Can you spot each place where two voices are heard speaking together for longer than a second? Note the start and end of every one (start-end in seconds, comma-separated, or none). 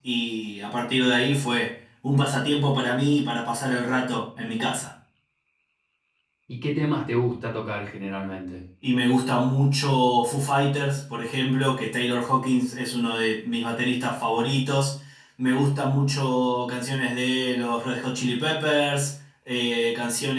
none